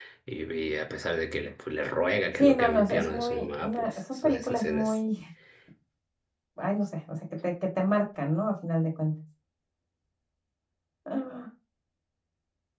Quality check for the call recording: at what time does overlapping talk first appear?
2.4 s

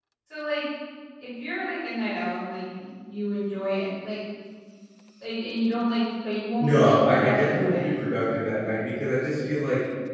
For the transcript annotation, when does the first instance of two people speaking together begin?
6.6 s

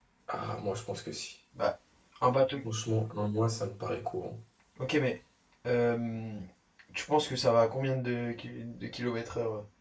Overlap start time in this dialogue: none

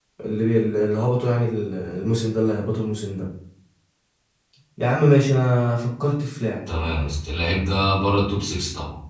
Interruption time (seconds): none

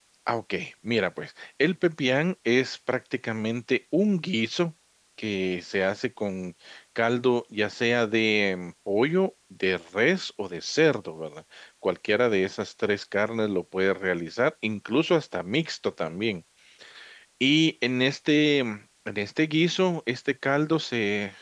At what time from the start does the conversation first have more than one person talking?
none

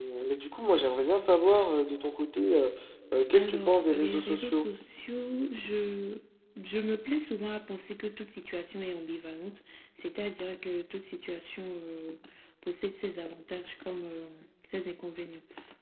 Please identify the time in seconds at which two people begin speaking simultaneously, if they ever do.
3.3 s

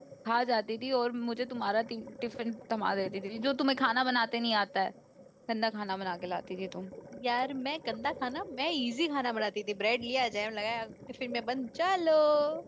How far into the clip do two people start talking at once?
none

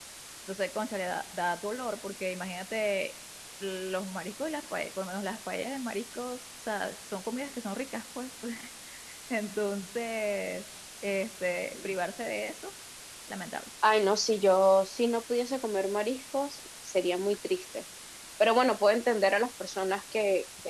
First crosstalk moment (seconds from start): none

